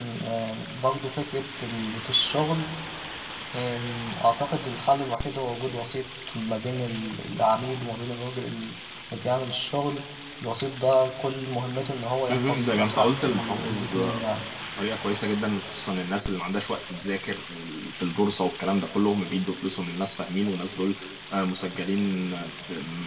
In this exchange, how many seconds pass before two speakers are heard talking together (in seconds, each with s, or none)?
12.3 s